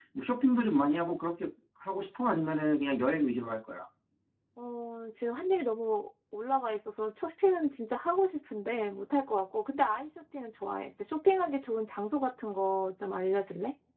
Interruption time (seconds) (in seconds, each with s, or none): none